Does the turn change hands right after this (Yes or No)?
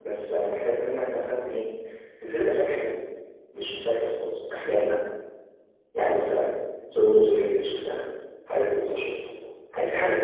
Yes